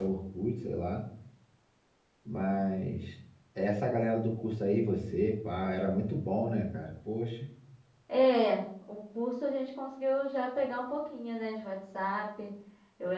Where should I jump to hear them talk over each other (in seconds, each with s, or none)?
none